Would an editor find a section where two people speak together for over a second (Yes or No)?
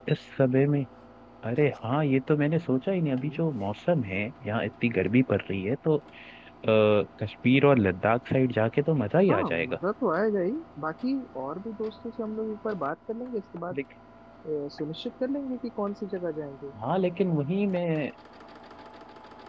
No